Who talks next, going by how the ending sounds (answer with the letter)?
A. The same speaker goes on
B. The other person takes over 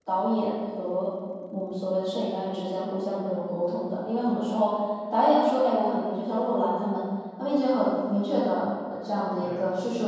A